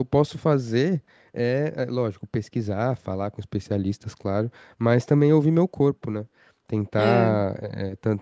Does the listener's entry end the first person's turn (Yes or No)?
No